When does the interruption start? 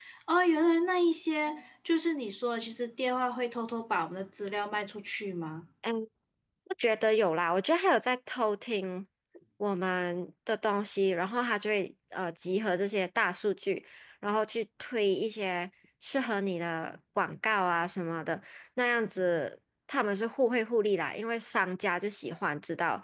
none

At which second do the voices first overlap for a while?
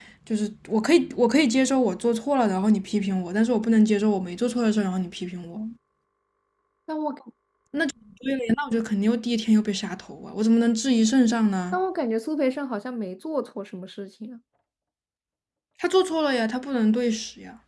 none

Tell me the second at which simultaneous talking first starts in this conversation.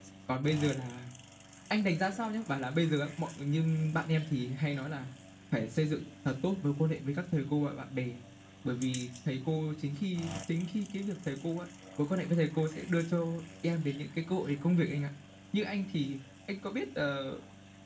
none

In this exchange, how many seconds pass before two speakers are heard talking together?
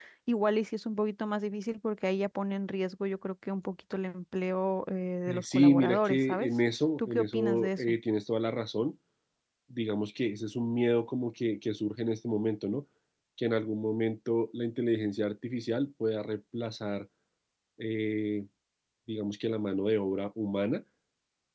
5.3 s

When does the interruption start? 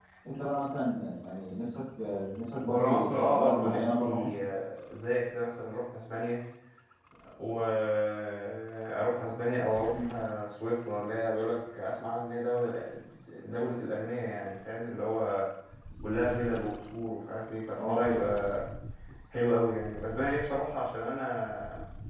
2.6 s

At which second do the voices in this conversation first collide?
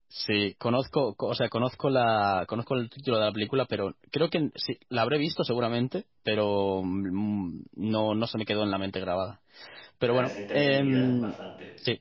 10.1 s

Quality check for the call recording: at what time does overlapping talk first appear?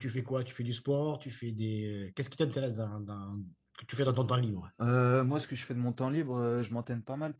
none

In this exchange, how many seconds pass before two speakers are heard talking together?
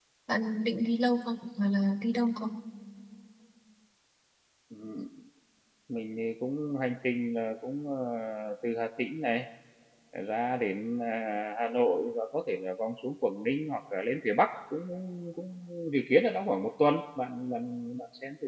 none

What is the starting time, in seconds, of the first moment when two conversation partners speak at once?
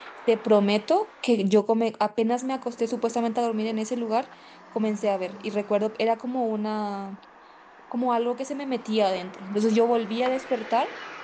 none

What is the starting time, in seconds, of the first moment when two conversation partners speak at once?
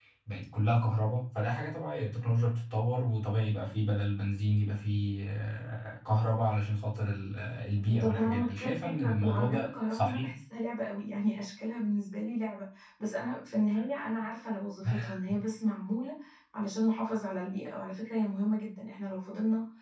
7.9 s

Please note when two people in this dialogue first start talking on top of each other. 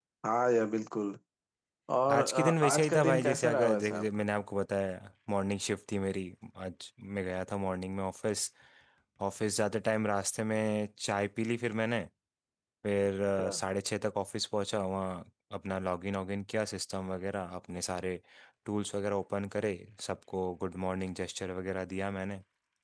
2.1 s

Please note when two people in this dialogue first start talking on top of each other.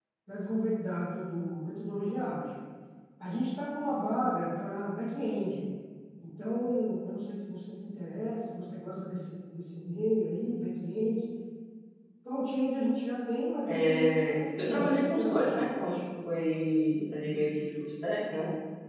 13.6 s

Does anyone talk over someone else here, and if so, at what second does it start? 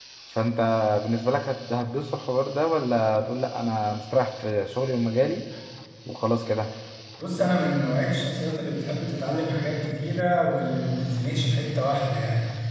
none

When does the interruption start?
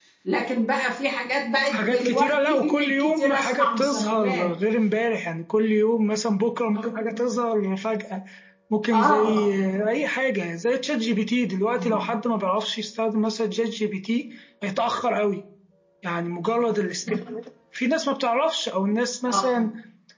1.7 s

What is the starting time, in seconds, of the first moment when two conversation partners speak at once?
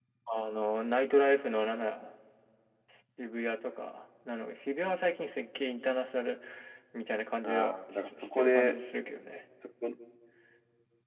7.4 s

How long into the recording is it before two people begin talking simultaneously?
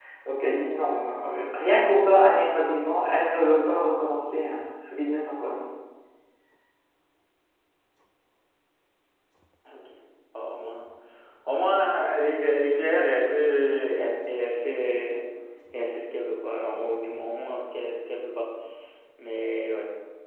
none

